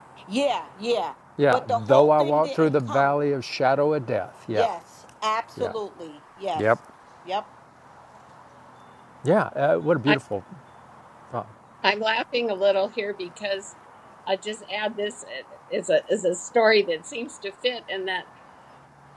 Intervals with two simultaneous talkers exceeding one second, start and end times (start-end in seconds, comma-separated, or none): 1.5-3.1